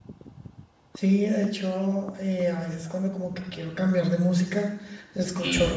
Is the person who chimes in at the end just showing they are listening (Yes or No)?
Yes